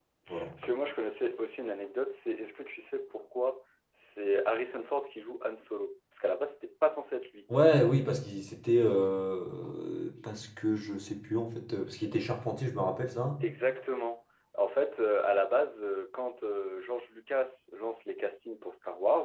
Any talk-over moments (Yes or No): No